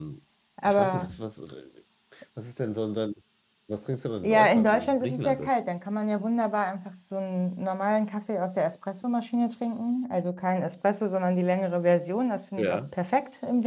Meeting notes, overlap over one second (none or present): present